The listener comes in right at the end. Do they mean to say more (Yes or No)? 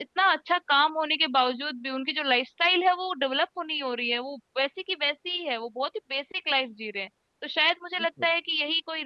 No